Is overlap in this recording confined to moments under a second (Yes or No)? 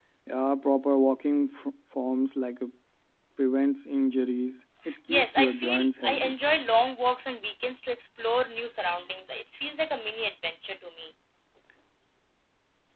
No